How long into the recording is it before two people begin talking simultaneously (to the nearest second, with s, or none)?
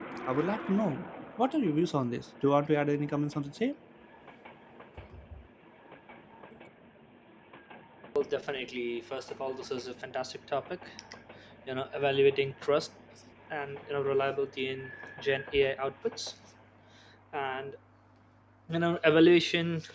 none